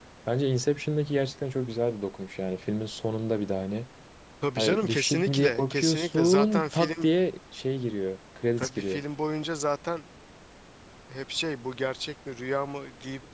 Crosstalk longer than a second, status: present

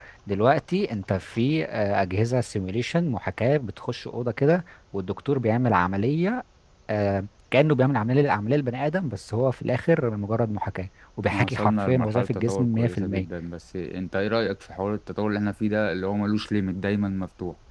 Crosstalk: present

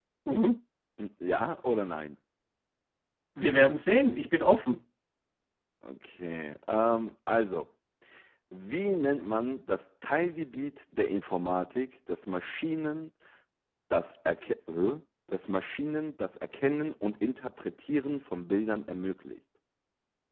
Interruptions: none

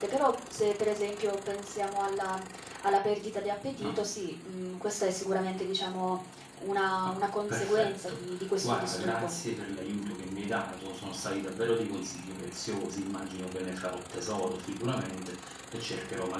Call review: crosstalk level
present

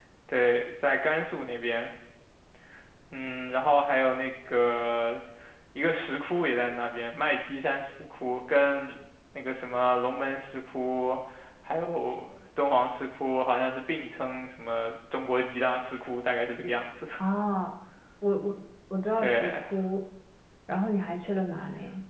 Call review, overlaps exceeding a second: none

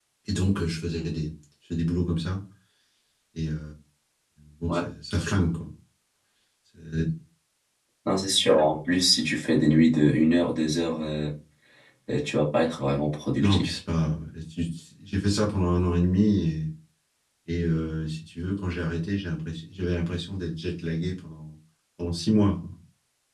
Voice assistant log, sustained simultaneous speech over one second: none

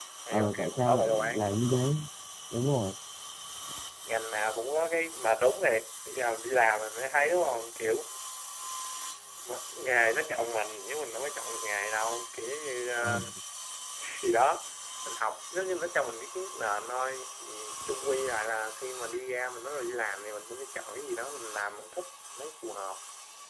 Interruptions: present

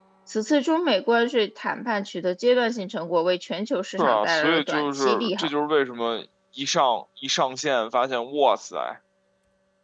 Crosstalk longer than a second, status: present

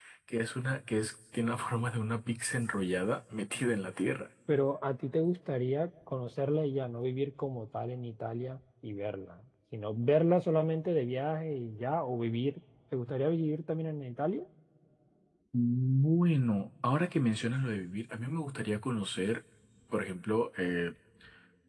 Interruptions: none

